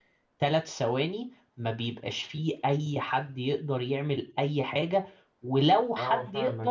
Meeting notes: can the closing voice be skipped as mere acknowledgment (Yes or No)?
Yes